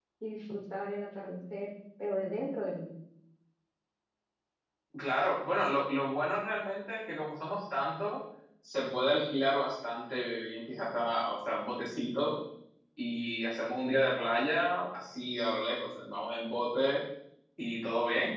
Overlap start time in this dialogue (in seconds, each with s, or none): none